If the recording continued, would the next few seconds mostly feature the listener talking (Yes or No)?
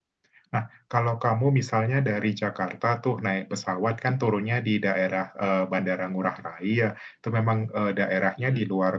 No